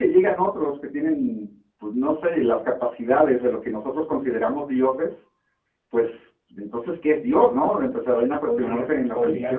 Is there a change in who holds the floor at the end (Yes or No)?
Yes